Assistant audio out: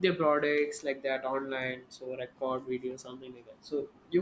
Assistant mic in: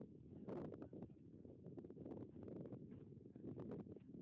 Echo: none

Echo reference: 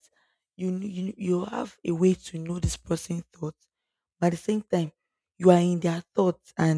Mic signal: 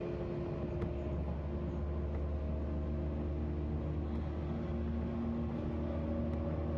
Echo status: none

